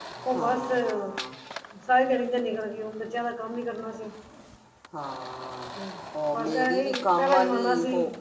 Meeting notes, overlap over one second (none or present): present